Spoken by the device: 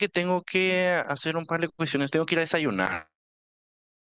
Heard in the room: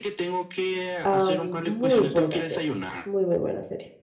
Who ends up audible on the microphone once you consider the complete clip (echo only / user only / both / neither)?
both